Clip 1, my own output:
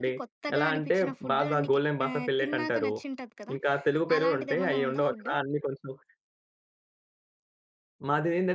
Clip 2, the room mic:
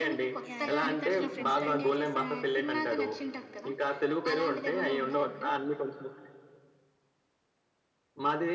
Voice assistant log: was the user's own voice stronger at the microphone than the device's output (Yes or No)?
No